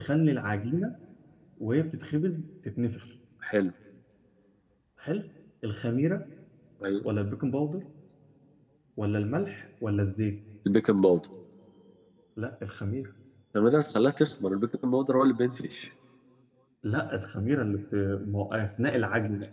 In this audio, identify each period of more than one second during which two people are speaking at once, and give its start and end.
none

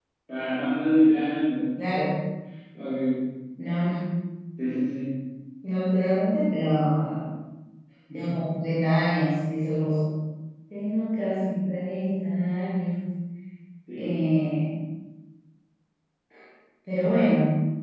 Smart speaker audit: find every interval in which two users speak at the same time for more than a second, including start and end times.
none

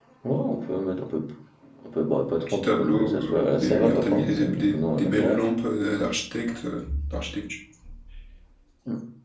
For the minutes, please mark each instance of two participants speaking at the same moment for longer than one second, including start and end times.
2.5-5.4

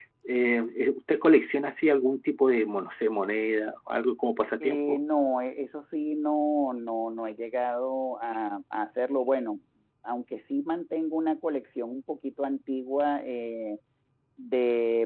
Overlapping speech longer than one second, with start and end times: none

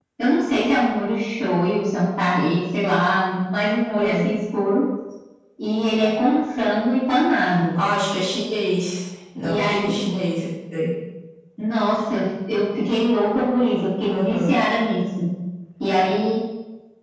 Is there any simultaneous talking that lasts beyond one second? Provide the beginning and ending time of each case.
none

